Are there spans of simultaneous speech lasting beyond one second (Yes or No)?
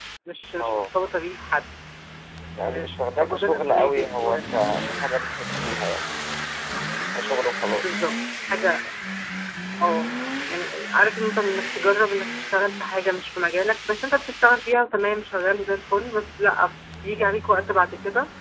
Yes